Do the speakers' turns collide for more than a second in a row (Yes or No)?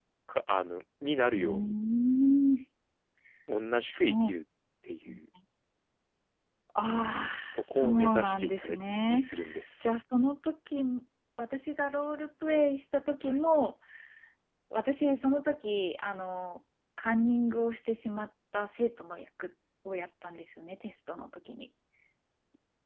Yes